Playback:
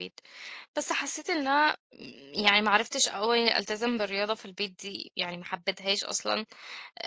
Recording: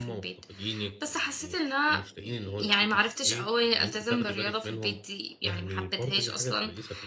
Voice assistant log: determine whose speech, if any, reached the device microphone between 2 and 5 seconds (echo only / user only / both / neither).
both